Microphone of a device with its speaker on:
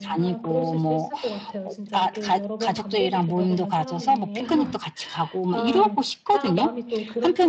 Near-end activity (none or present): present